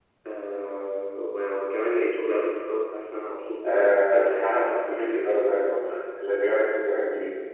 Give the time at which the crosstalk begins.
3.6 s

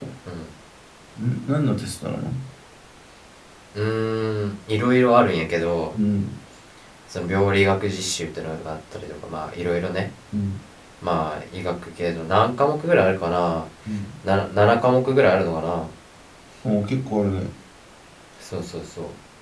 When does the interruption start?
none

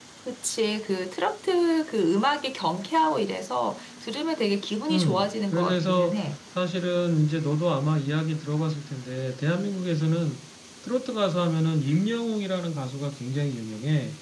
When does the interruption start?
4.9 s

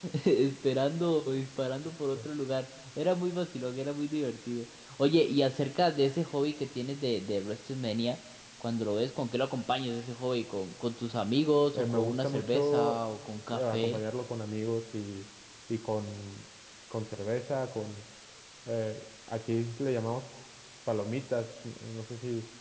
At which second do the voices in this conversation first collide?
11.8 s

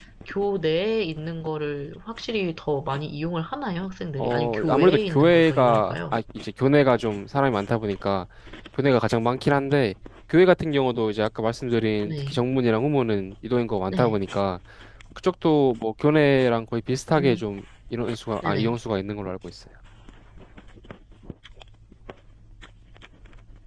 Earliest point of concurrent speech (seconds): 4.2 s

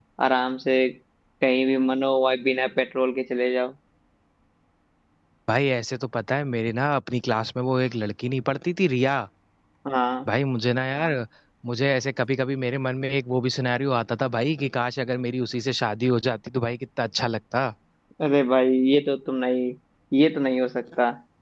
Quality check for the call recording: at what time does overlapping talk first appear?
none

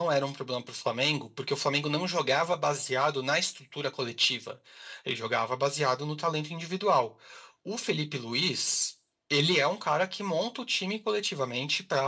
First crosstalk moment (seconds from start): none

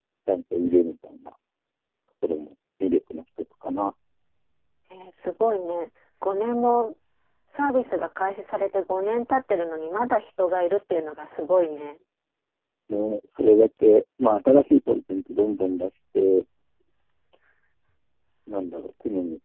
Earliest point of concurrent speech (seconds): none

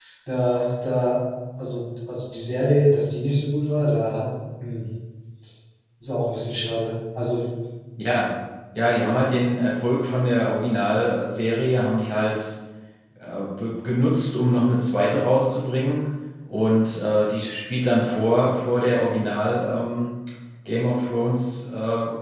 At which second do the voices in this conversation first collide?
none

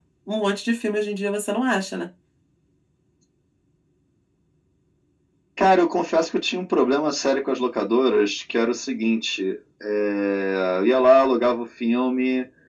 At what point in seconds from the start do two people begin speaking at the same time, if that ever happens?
none

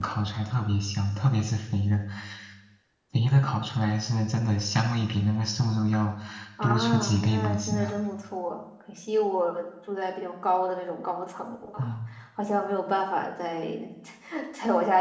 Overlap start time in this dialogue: 6.6 s

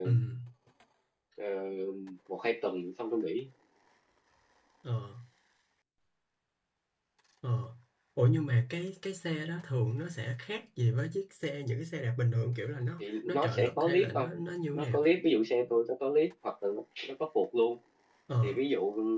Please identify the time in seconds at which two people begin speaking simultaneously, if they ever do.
13.0 s

